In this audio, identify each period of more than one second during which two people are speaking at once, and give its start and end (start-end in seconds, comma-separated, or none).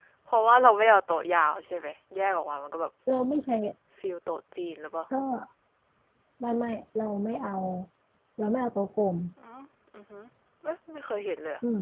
none